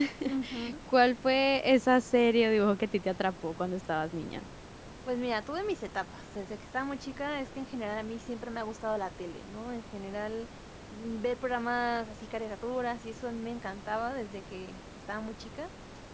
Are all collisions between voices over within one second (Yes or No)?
Yes